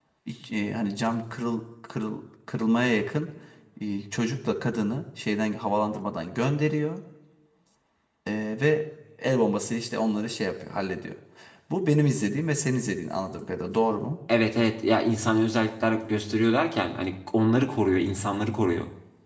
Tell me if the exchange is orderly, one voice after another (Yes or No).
Yes